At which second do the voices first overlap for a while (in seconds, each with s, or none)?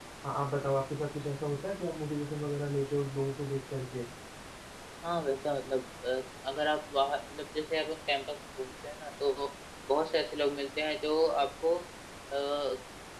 none